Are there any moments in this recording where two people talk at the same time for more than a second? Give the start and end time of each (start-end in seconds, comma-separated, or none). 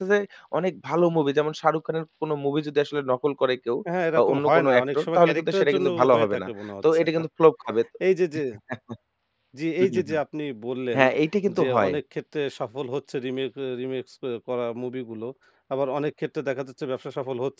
4.2-6.5